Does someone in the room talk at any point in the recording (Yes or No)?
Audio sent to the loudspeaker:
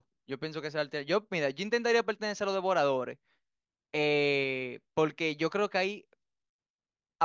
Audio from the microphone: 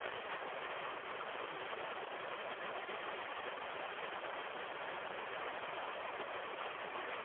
No